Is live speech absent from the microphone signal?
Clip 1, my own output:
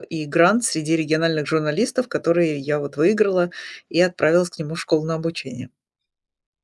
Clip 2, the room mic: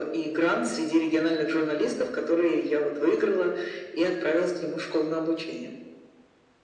Yes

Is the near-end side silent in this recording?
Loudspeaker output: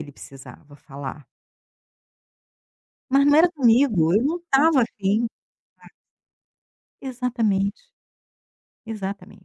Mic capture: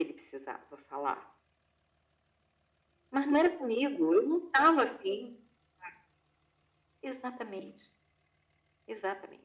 Yes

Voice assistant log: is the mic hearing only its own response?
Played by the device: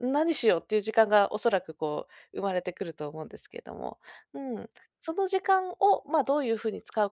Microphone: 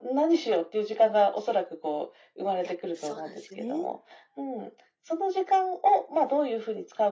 No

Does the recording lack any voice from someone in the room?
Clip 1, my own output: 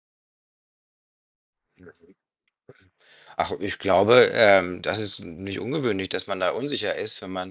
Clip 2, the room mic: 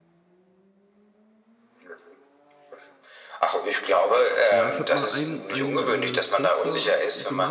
No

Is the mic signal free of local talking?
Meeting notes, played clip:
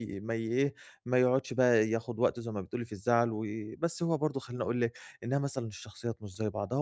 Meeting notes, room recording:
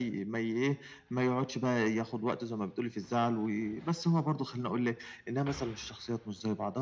Yes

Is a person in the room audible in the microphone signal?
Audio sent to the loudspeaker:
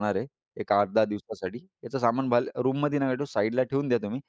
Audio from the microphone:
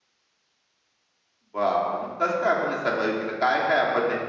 Yes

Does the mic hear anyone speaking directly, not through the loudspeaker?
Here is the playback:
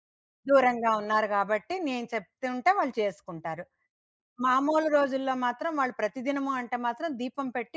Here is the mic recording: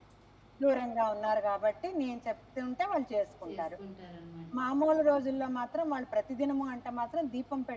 Yes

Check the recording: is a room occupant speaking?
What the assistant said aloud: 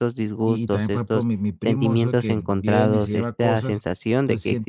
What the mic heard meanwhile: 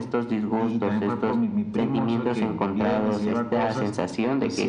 No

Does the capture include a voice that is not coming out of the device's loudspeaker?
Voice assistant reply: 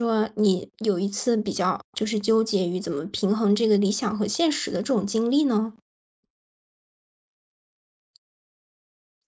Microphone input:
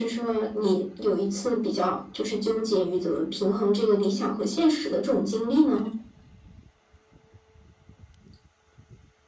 No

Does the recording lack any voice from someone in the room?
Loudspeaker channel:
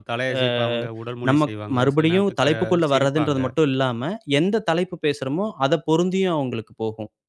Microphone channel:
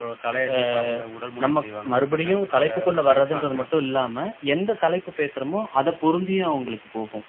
Yes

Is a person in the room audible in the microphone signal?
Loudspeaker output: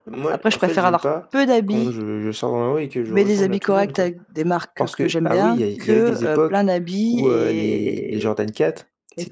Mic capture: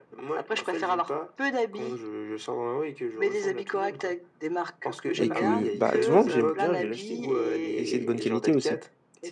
Yes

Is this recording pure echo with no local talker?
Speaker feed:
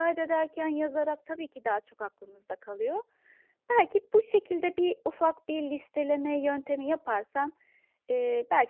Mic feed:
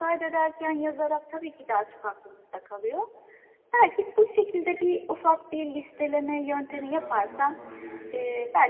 No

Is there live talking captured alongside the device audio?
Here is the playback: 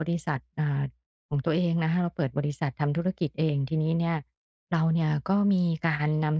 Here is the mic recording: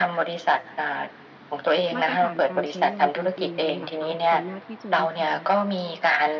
Yes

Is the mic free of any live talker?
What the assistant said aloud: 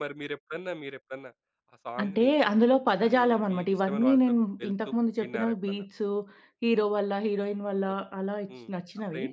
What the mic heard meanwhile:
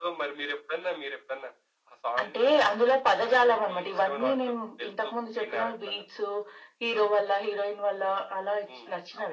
Yes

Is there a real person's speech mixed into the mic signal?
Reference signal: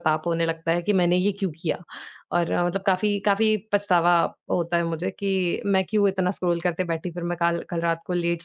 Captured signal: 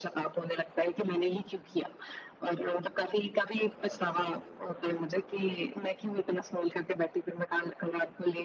No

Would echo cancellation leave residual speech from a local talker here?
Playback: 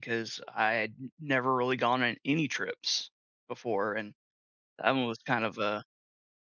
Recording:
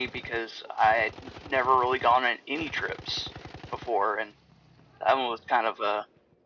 No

